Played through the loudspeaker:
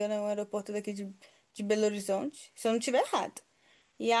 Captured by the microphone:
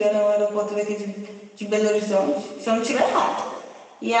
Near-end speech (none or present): none